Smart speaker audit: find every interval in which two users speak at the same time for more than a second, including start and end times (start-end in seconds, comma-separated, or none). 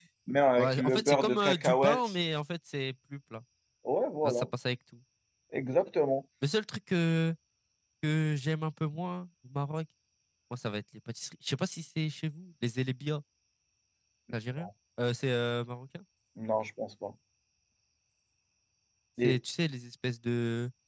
0.6-2.0